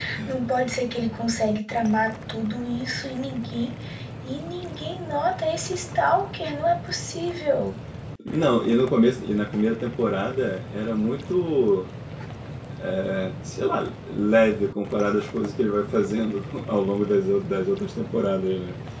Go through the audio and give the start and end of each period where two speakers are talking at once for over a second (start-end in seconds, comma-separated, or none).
none